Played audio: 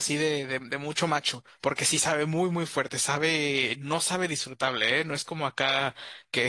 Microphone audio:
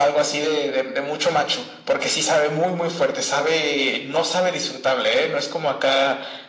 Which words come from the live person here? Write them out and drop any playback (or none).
none